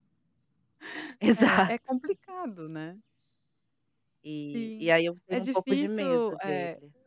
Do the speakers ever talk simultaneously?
Yes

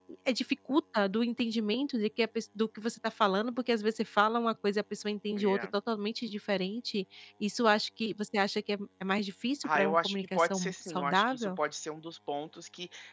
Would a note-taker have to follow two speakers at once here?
Yes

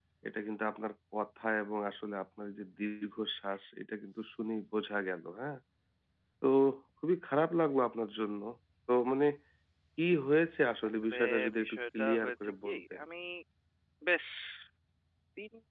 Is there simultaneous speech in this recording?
Yes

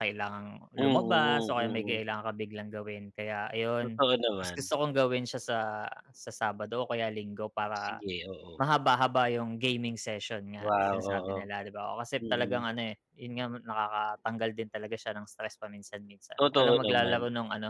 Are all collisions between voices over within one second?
No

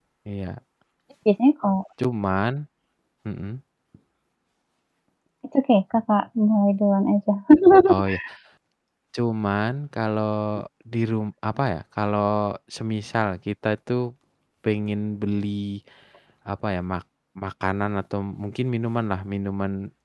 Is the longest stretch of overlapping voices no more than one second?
Yes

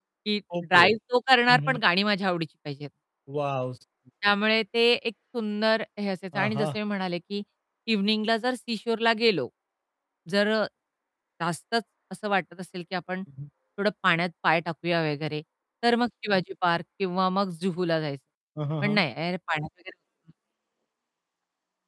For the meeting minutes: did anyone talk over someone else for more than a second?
No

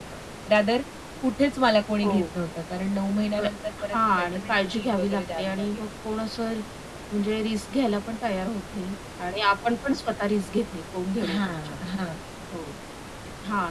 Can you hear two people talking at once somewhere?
Yes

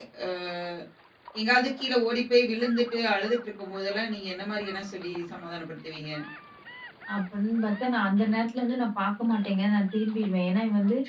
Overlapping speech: No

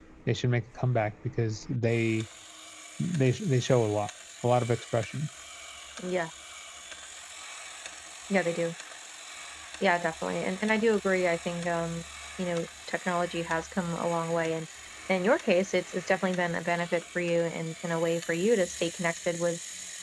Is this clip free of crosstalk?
Yes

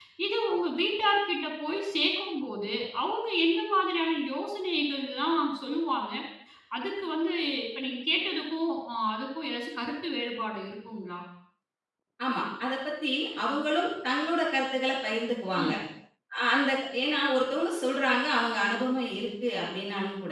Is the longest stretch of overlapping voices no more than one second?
Yes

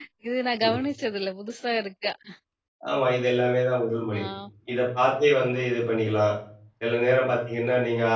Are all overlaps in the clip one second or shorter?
Yes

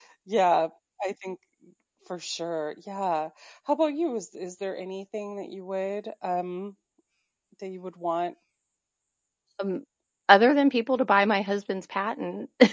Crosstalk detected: No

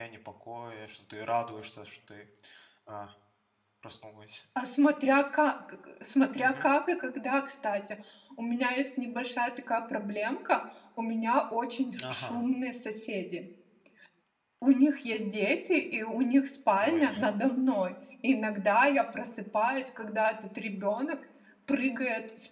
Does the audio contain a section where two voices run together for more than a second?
No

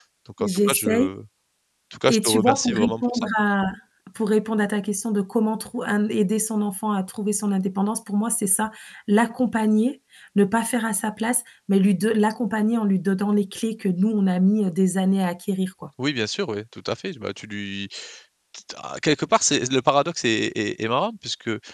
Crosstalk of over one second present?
Yes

